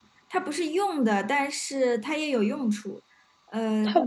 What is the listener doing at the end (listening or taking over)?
listening